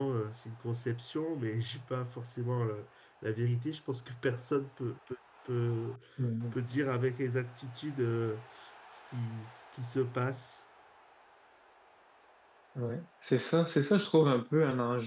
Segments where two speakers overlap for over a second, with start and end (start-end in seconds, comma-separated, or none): none